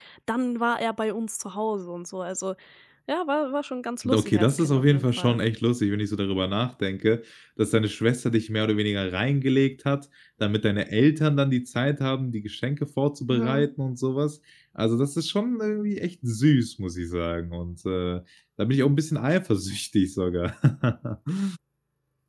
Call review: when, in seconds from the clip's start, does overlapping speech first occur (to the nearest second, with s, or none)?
4 s